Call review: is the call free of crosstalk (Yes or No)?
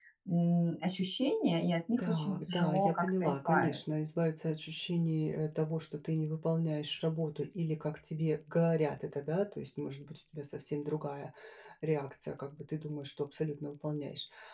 No